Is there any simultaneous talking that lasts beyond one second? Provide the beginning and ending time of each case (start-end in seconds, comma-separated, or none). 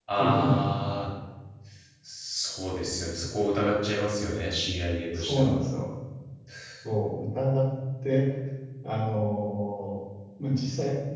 none